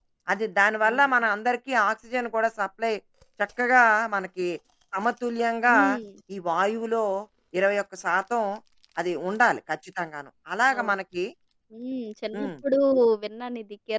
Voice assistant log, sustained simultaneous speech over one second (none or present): none